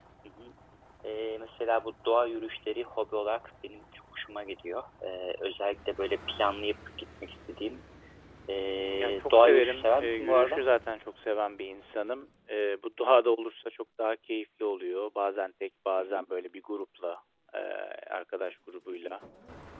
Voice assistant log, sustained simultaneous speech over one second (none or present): present